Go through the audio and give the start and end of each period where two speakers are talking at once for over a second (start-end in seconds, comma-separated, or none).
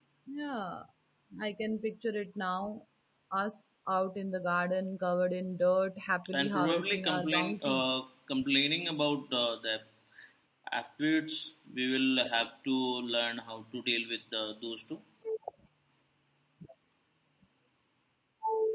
6.4-7.8